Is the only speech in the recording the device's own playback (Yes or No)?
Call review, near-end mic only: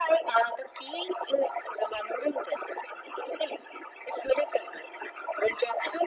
Yes